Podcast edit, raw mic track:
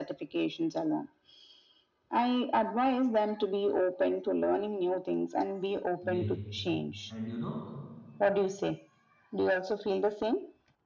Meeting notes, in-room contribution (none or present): present